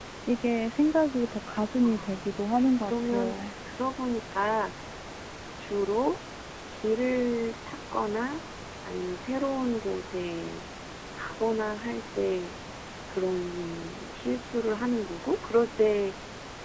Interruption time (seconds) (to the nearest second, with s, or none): 2 s